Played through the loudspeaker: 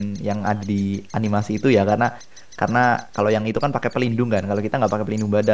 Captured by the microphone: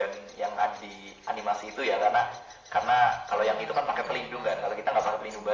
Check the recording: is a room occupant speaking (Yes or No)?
Yes